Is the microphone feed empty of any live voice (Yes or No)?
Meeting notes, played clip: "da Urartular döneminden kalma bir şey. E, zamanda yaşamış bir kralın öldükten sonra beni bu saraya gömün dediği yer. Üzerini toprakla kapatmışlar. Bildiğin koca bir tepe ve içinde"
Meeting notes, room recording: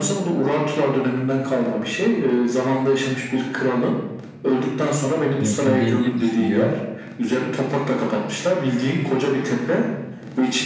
No